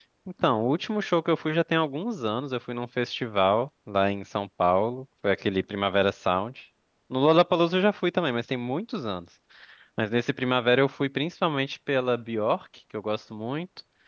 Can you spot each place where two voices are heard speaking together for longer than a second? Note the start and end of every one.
none

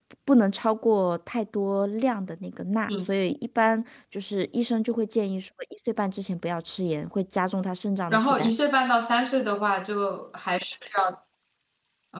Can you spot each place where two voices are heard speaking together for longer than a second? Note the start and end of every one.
none

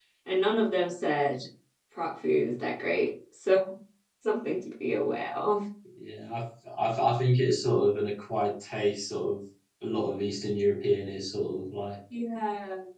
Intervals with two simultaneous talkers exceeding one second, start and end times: none

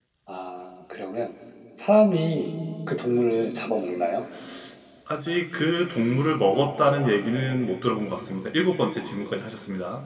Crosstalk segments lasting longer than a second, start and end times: none

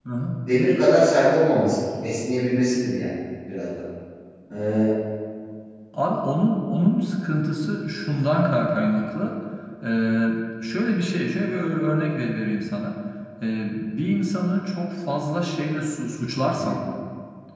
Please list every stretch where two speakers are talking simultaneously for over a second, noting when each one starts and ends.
none

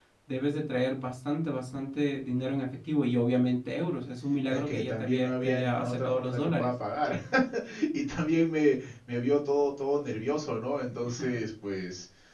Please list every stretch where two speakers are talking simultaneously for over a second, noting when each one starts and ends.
4.5-6.7

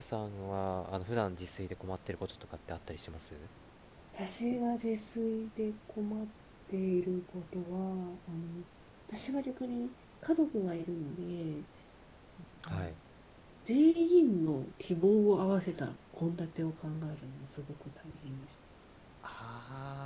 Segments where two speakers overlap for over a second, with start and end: none

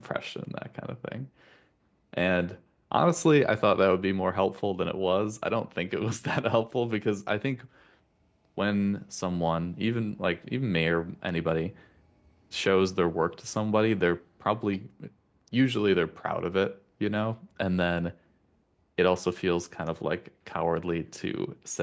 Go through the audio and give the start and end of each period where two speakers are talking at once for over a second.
none

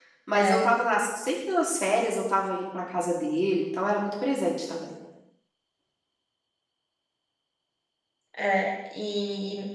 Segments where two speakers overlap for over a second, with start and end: none

